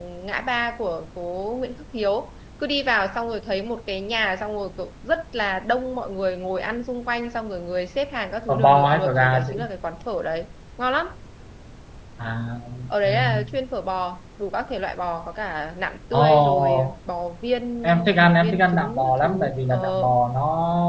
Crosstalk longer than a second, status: present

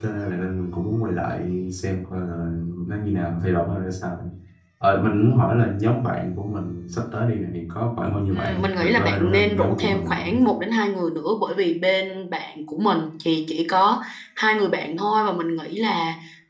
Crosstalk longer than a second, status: present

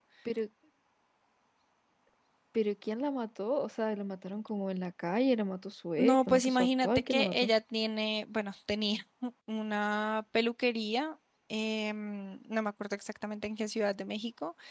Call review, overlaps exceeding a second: present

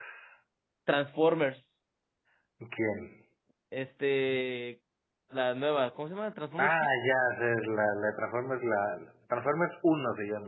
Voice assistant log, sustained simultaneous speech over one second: none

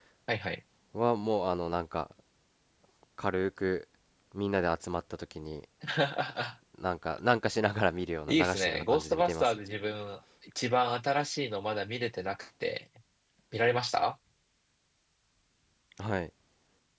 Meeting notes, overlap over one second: present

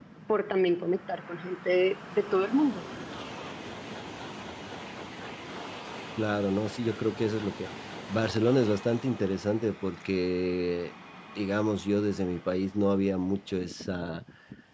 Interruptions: none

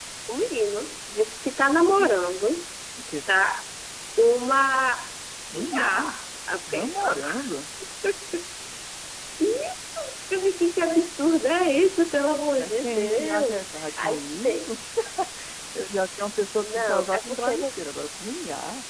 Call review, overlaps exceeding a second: present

